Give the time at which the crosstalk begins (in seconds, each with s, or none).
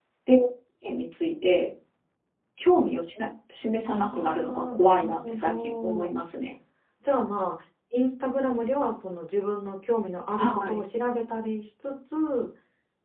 3.8 s